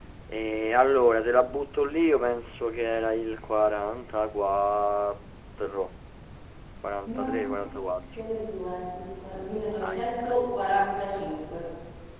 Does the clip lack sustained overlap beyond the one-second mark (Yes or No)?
Yes